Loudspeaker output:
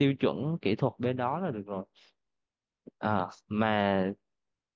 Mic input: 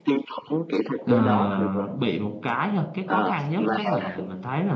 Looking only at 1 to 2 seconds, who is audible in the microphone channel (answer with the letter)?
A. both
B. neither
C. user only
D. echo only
A